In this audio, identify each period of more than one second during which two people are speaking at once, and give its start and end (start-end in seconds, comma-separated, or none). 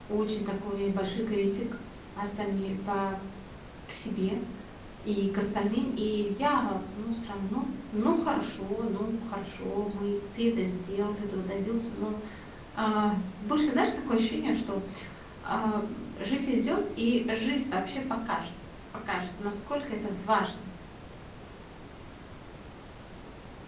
none